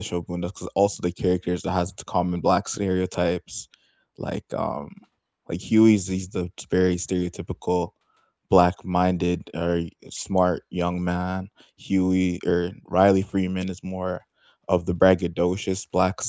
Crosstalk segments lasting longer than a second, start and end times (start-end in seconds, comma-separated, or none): none